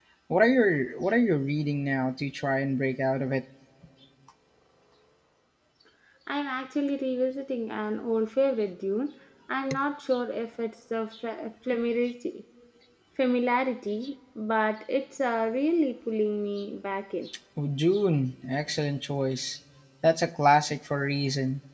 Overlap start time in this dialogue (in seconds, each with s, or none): none